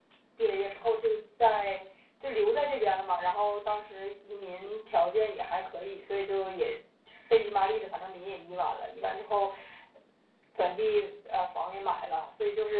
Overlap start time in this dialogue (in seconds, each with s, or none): none